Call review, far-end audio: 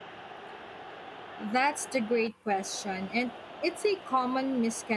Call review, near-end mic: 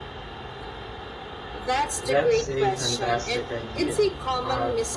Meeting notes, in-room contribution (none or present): present